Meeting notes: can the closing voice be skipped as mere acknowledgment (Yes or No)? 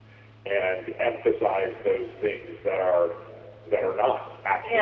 No